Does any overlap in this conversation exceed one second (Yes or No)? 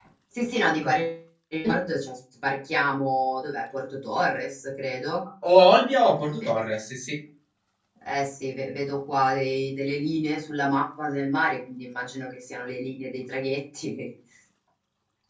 No